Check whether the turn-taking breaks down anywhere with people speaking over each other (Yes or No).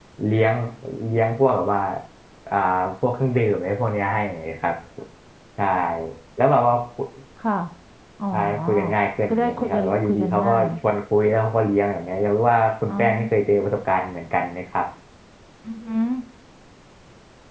Yes